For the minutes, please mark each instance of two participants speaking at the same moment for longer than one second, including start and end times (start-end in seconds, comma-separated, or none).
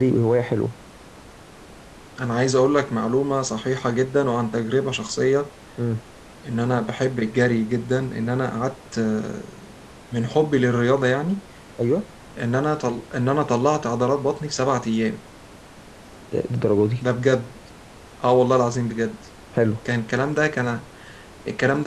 none